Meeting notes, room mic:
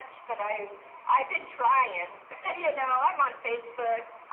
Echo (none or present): present